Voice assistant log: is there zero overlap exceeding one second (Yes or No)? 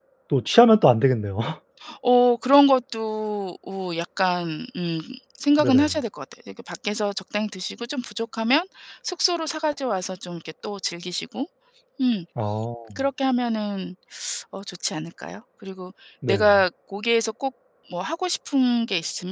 Yes